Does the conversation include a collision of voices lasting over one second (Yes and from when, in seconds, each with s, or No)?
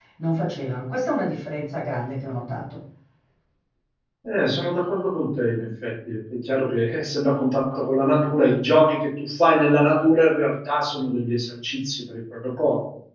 No